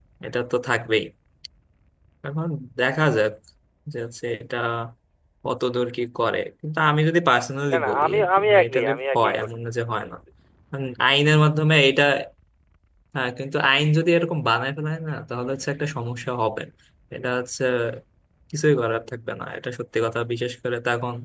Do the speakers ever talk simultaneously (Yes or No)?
Yes